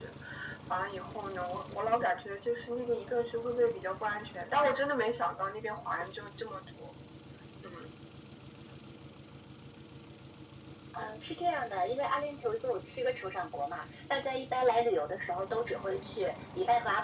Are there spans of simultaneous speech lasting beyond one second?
No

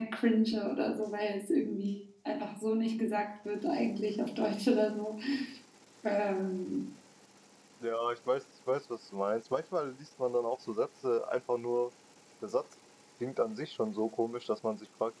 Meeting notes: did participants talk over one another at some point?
No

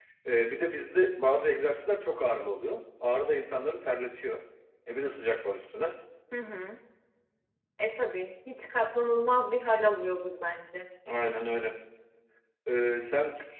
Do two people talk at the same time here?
No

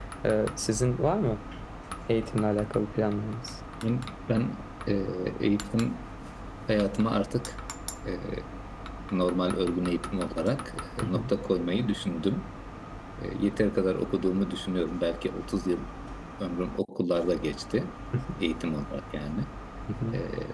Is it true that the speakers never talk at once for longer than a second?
Yes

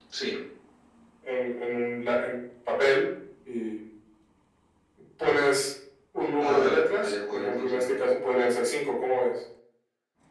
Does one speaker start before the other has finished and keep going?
Yes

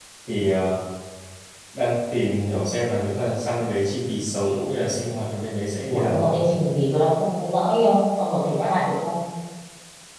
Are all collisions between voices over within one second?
Yes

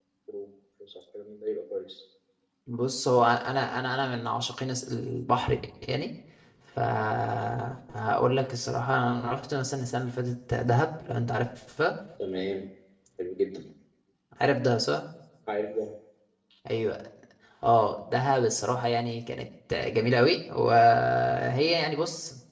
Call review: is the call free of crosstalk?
Yes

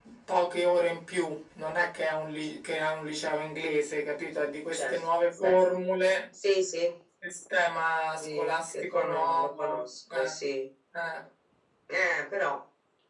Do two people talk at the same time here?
Yes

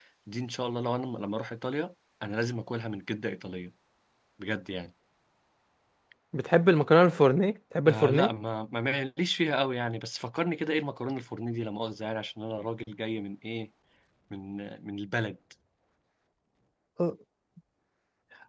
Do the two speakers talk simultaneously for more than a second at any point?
No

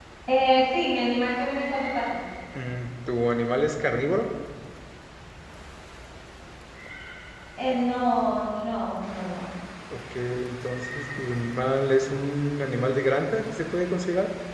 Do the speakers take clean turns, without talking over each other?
Yes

